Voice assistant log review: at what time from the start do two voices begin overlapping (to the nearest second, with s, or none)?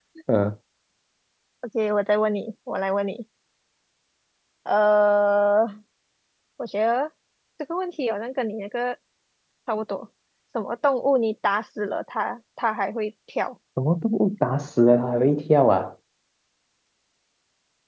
none